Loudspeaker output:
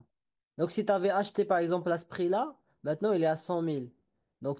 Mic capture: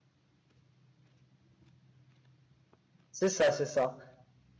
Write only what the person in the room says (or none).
c'est ça, c'est ça.